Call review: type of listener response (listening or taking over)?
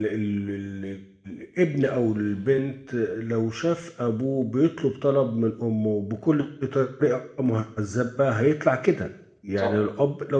listening